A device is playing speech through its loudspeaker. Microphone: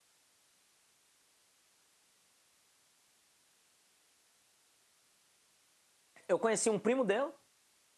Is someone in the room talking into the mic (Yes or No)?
Yes